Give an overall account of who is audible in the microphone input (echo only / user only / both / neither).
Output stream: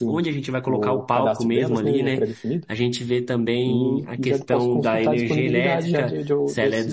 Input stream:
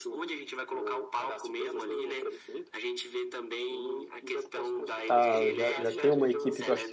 both